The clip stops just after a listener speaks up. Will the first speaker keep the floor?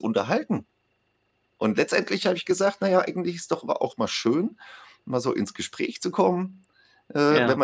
Yes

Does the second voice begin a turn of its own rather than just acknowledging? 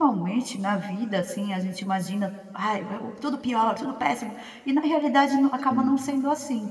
No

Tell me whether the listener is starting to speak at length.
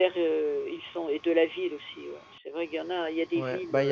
Yes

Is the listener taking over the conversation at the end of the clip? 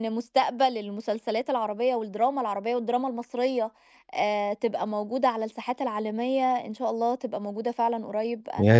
Yes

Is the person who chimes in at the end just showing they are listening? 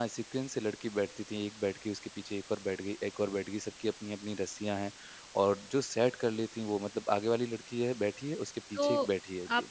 No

